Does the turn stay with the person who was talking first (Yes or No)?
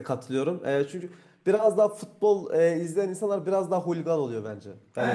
No